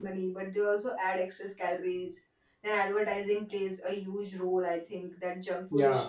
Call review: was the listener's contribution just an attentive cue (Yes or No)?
Yes